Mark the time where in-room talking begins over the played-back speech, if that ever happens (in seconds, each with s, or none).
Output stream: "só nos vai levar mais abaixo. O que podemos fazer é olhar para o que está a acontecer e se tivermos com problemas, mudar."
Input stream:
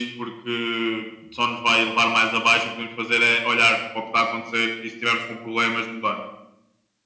none